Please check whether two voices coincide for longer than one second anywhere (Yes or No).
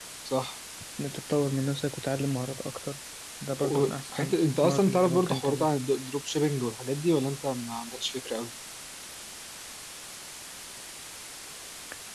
Yes